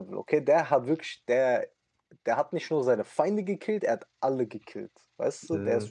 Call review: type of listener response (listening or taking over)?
listening